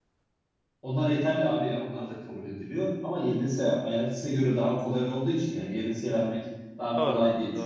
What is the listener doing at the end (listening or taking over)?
listening